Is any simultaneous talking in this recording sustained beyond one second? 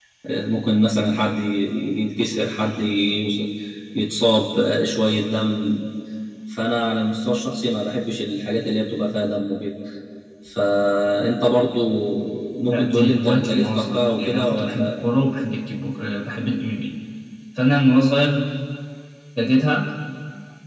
Yes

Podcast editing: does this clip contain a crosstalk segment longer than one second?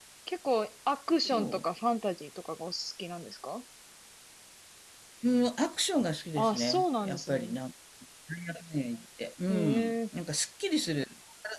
Yes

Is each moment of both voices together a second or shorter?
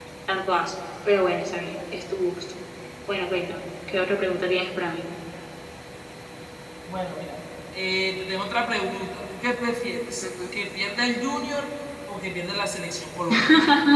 Yes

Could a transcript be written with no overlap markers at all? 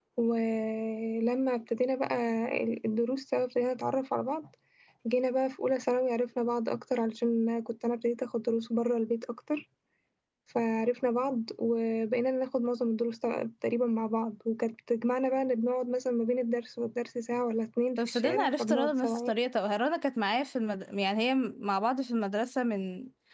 No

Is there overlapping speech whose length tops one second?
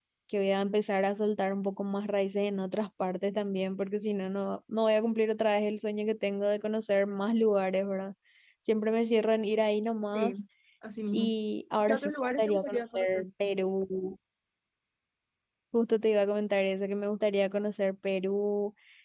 Yes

